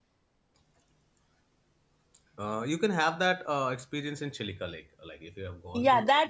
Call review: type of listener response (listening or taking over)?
taking over